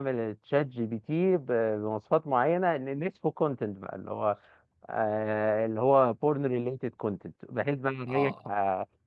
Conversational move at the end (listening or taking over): listening